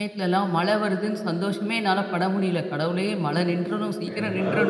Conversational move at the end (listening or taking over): taking over